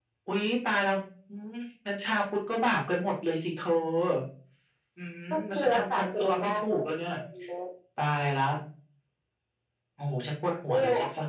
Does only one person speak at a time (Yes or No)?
No